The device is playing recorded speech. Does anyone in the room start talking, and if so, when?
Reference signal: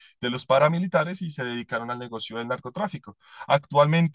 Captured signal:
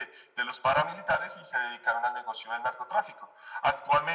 none

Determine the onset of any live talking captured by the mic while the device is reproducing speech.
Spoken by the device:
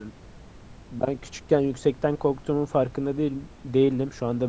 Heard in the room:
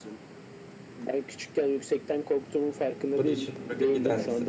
3 s

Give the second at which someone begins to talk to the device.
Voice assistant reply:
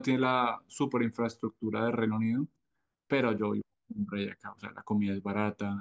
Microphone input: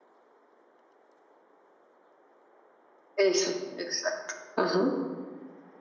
3 s

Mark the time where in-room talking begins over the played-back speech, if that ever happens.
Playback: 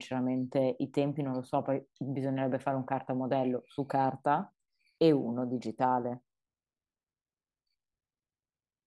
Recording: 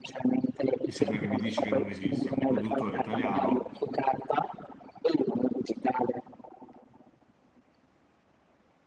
1 s

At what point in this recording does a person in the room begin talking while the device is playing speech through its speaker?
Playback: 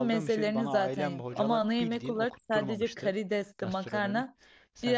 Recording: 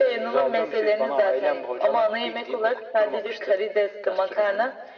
none

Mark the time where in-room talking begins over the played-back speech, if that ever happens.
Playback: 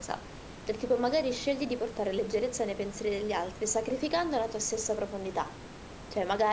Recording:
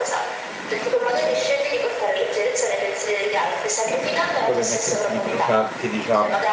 4 s

